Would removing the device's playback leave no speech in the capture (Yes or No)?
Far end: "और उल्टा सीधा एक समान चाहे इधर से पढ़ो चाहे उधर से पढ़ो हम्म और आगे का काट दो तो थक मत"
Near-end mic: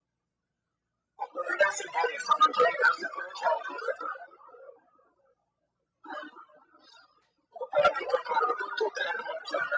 Yes